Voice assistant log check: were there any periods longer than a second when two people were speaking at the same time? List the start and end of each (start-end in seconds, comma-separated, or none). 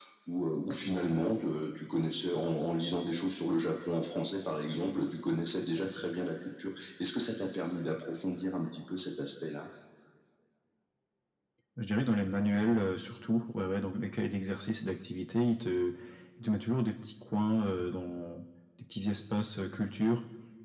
none